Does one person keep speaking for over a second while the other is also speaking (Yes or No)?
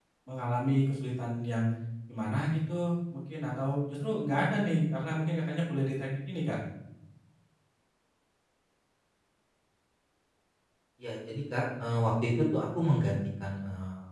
No